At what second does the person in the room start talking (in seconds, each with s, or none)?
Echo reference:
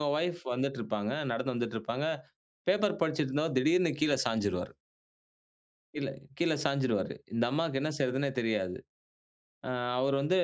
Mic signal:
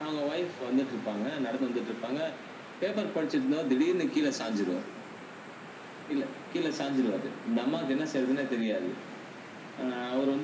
none